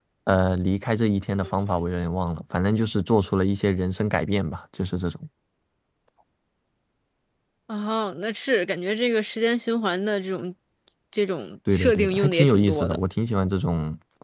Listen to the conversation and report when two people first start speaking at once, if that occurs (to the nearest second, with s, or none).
12 s